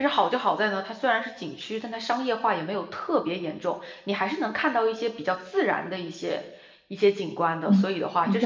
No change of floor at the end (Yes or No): No